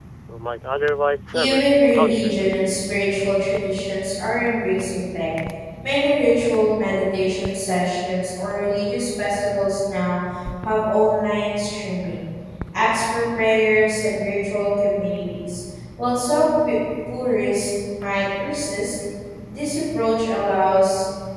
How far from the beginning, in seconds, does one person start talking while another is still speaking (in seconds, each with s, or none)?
1.3 s